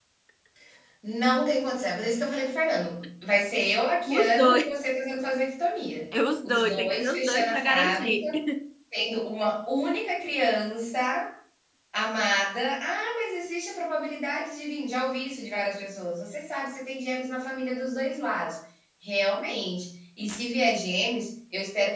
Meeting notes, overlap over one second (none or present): present